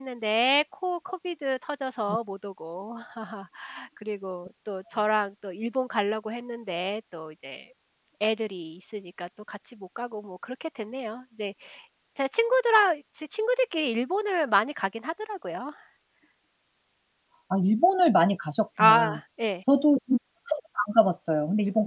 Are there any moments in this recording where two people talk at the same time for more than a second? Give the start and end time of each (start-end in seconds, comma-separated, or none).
none